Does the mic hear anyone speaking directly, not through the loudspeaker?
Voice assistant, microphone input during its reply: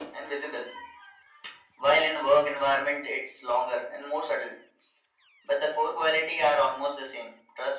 No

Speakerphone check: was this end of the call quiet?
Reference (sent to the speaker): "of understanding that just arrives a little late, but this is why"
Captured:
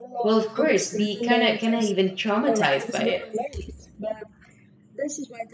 No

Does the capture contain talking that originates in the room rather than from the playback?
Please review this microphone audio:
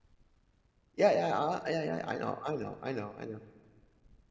Yes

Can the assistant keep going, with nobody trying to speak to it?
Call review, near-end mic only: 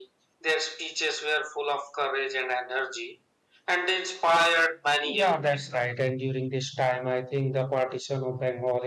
No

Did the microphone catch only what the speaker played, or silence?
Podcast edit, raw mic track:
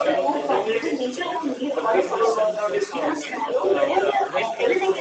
No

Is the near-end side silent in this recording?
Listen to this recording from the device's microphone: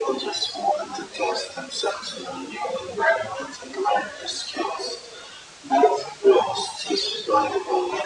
Yes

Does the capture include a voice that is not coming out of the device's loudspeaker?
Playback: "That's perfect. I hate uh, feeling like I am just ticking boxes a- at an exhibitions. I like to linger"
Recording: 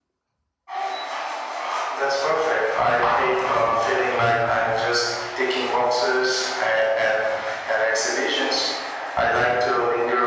No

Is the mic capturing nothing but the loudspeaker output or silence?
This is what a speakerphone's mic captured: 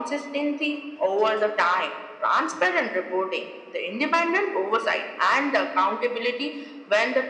Yes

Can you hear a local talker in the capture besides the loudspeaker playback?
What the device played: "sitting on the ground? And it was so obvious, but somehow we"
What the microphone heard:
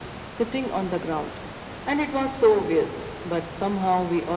No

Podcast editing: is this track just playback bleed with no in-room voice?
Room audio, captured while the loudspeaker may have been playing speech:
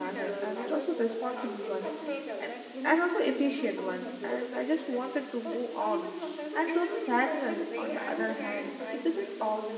No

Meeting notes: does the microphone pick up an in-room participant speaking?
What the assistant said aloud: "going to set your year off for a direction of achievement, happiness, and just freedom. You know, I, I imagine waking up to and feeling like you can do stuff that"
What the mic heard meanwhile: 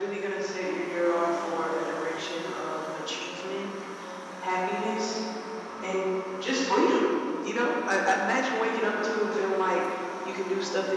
No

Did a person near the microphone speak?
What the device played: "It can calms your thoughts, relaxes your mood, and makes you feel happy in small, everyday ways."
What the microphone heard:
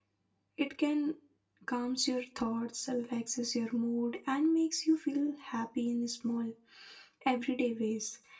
No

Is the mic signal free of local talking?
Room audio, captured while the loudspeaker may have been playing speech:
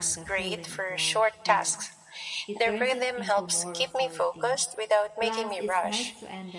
No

